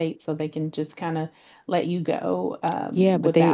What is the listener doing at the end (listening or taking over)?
taking over